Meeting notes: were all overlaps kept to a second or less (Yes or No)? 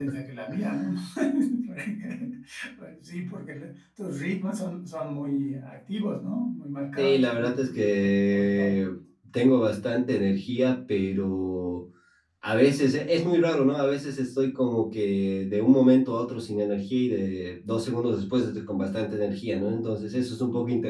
No